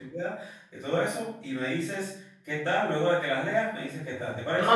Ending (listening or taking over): taking over